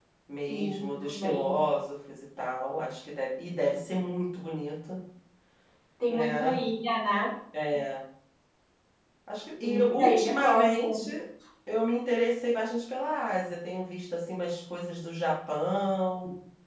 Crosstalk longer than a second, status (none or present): present